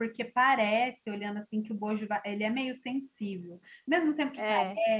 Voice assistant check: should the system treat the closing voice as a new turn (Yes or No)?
No